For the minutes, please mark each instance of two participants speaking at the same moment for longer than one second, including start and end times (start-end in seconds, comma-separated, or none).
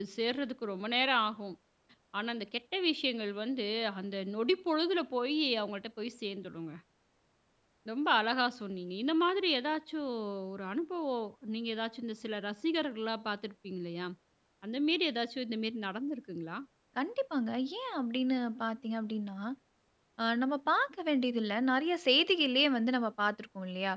none